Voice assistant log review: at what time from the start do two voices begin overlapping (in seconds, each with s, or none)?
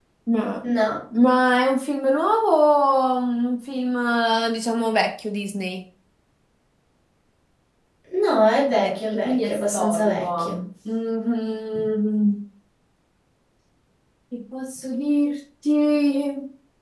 8.7 s